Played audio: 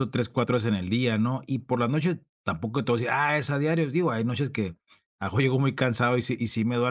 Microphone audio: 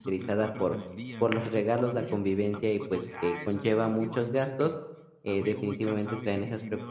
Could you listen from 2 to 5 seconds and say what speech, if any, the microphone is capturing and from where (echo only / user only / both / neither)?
both